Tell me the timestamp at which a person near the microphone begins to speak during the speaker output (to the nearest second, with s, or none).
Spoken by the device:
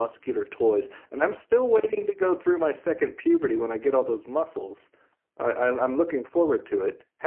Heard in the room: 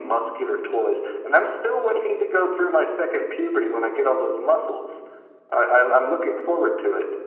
none